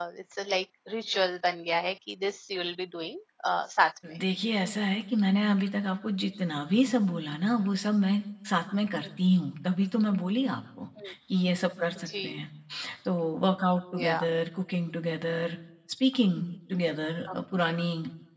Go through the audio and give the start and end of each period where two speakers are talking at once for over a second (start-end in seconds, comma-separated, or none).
none